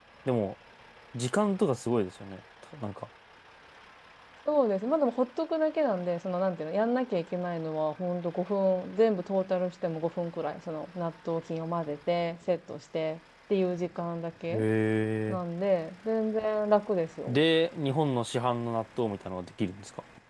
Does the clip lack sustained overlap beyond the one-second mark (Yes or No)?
Yes